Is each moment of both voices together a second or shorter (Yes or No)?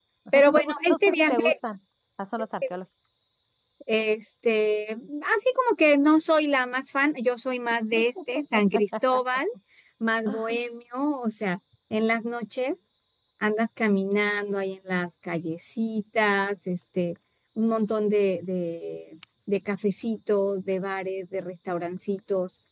No